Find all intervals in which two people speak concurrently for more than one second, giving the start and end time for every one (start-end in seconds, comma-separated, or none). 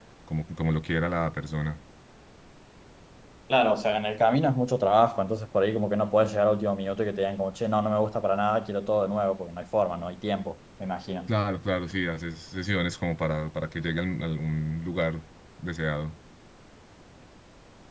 none